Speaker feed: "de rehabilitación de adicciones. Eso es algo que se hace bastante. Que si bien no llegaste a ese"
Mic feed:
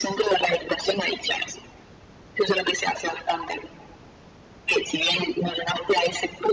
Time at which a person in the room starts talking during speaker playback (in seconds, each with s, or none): none